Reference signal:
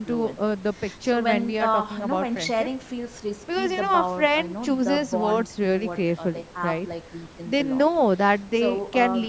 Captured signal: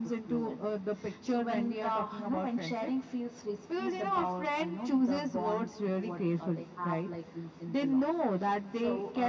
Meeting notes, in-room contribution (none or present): none